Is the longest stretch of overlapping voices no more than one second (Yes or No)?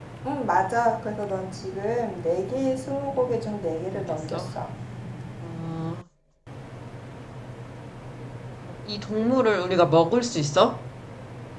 Yes